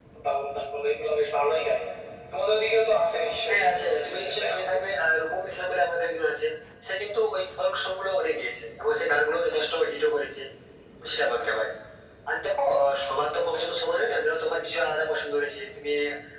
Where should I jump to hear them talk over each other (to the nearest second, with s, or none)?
3 s